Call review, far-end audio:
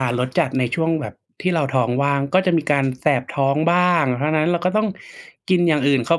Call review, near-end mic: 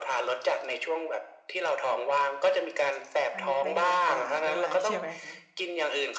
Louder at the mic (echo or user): echo